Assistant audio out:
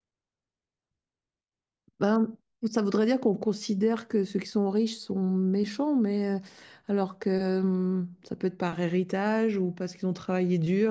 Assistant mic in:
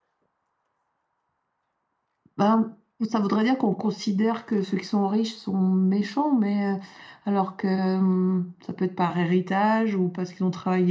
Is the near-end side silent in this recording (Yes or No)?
Yes